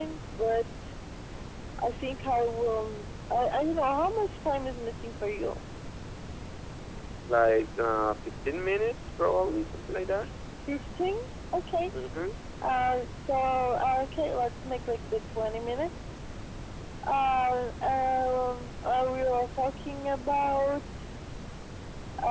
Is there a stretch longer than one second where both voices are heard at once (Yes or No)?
No